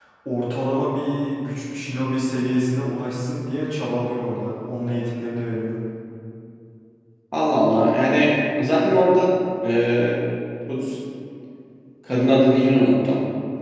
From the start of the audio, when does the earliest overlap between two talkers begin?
none

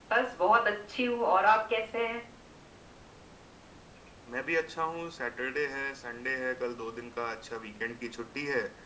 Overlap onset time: none

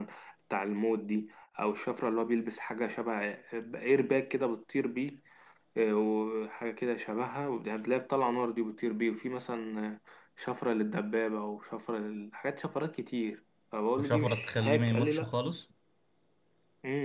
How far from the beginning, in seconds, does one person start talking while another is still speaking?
14 s

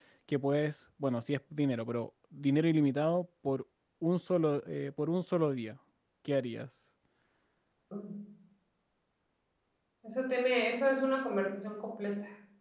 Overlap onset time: none

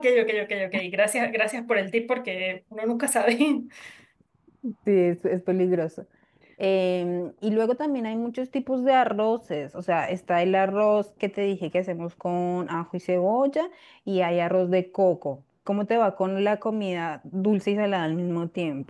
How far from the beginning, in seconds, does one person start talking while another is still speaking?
none

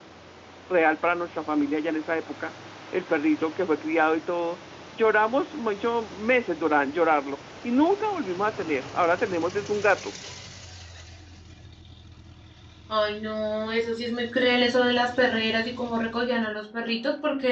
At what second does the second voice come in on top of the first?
none

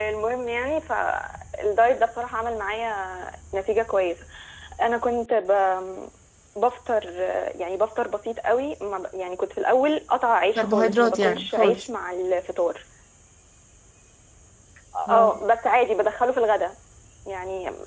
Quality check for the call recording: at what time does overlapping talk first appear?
11 s

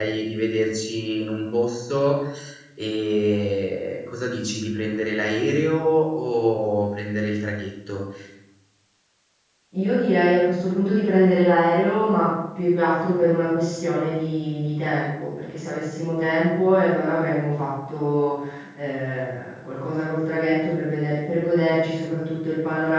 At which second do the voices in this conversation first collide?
none

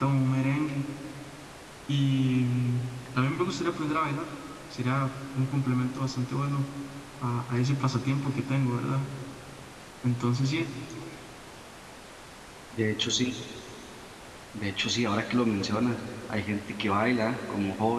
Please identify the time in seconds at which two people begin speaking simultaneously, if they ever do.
none

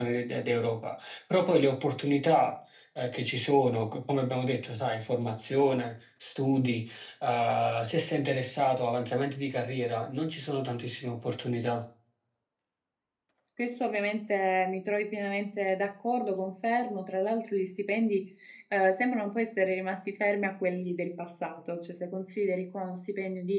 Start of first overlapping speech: none

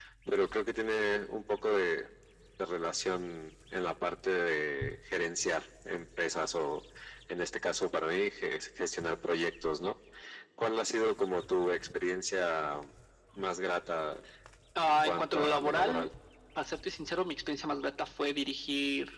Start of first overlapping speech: 15 s

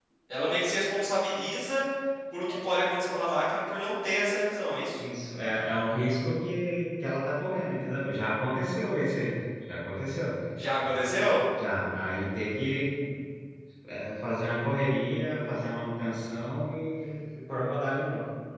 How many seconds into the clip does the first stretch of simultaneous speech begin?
none

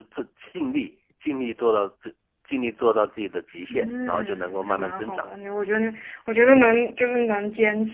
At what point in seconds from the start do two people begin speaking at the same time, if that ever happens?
4 s

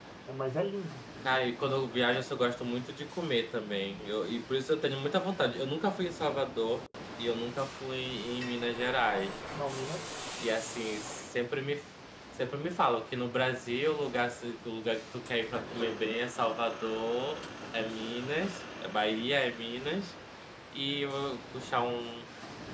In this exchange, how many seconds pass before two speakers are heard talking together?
none

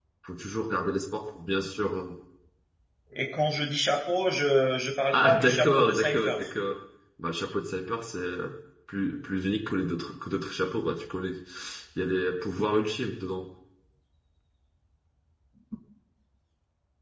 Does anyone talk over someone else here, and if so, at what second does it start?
5 s

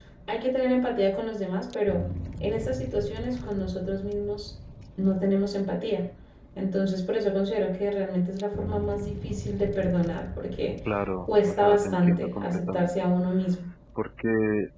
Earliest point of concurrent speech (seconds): 11 s

